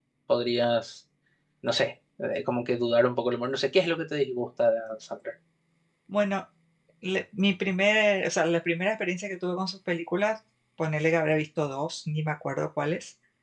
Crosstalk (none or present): none